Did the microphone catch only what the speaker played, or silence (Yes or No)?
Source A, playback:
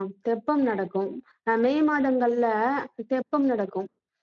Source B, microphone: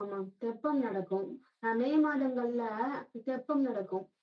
Yes